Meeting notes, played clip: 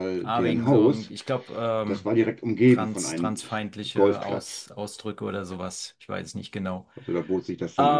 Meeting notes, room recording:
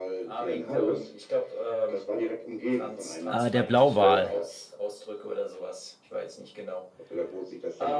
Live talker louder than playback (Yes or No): Yes